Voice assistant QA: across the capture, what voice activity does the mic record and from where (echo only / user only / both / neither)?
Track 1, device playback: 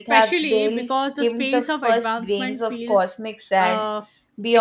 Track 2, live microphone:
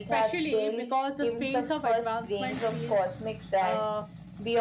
echo only